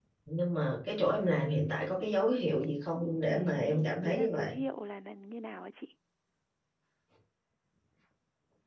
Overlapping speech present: Yes, from 3.3 s

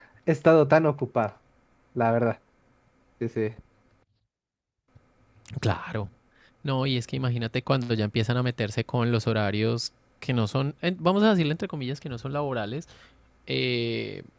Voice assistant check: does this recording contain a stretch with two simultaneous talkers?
No

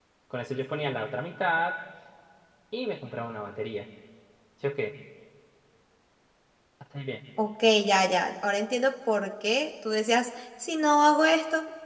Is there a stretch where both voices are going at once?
No

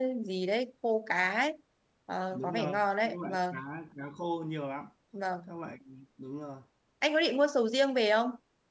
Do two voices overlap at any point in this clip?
Yes, from 2.3 s

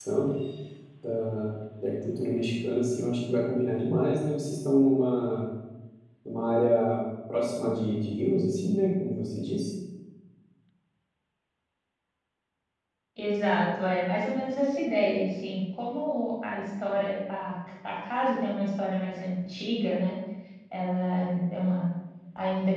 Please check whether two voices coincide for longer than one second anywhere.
No

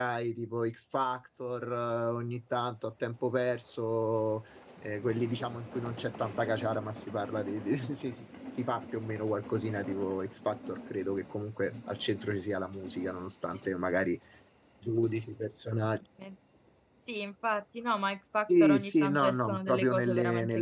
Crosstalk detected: Yes, from 18.5 s

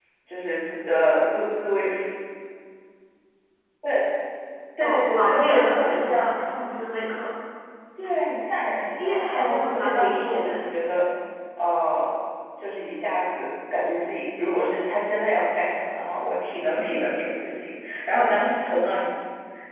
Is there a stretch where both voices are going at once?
Yes, from 4.8 s

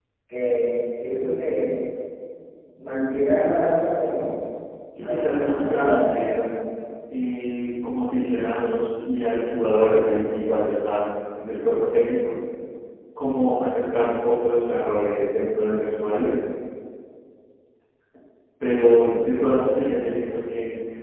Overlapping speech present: Yes, from 5.0 s

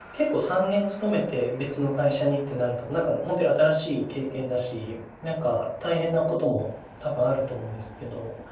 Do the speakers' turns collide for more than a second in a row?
No

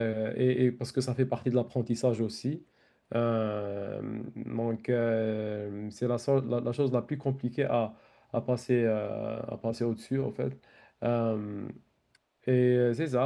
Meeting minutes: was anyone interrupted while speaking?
No

